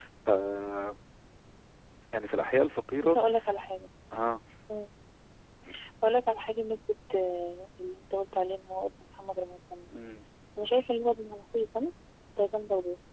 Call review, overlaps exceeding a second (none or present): none